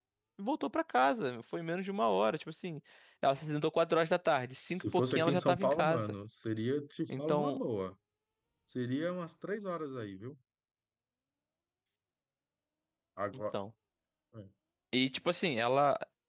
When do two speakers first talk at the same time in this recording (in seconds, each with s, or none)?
4.7 s